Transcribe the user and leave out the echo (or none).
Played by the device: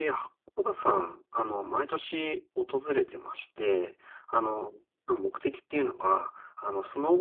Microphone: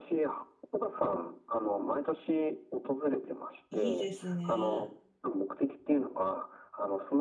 いいですね。